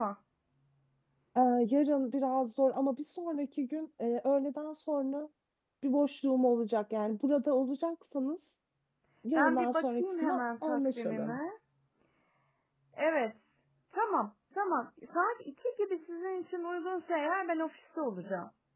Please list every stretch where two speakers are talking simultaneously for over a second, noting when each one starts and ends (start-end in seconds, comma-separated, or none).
9.3-11.4